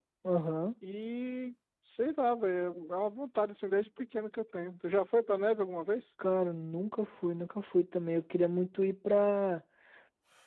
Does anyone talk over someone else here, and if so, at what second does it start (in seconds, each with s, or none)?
none